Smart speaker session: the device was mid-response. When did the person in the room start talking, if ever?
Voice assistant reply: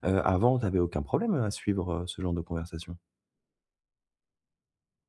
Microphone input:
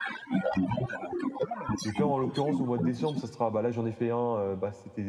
1.8 s

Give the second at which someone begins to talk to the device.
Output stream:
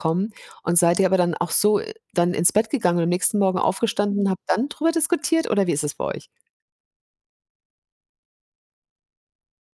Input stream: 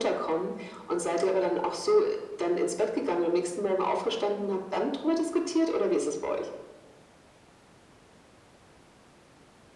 none

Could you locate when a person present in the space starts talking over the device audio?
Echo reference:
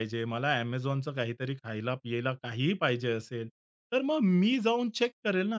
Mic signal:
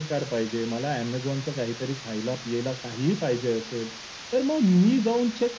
none

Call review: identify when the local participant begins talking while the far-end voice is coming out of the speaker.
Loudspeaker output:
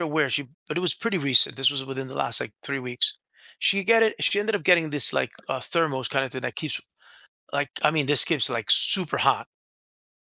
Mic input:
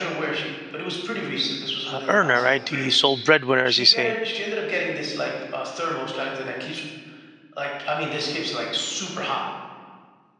1.9 s

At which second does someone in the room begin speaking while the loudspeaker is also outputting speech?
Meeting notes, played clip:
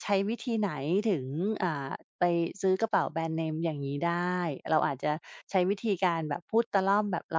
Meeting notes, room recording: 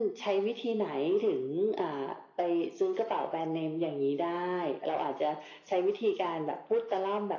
none

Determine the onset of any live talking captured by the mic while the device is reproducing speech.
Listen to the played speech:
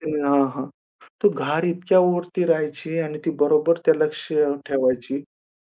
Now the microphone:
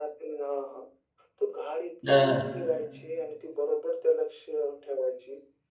2.1 s

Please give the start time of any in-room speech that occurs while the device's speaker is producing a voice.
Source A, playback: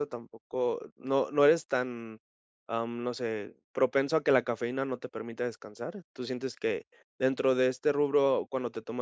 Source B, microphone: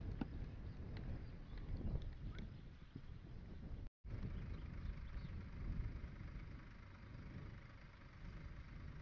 none

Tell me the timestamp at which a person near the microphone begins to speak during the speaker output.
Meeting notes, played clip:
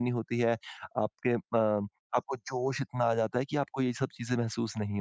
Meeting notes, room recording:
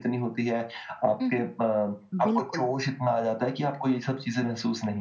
1.2 s

